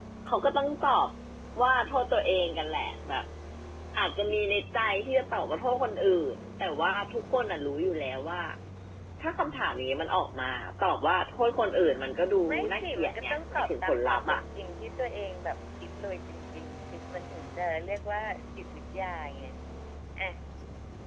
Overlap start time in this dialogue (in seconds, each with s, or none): 12.5 s